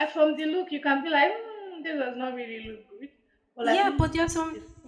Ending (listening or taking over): taking over